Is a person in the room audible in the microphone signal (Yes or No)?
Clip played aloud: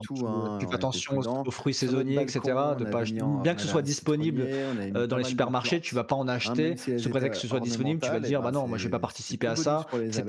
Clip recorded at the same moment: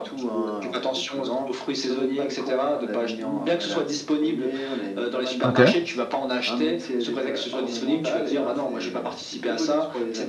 Yes